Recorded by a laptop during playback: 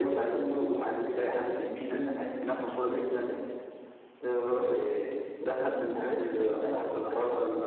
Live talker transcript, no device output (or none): none